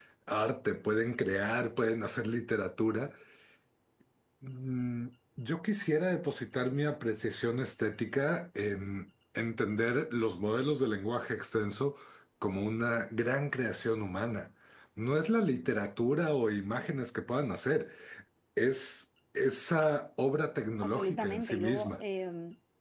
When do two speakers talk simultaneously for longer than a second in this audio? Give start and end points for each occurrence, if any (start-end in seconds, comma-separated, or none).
20.8-22.0